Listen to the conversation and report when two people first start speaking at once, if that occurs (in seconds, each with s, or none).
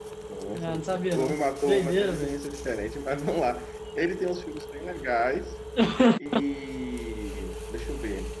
0.5 s